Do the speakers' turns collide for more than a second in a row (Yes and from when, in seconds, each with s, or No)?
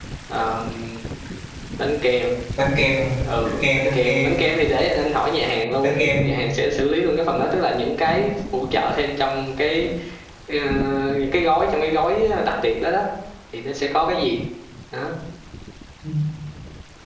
Yes, from 3.2 s